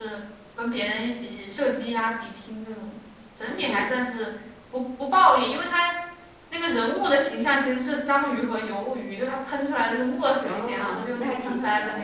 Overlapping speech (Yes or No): Yes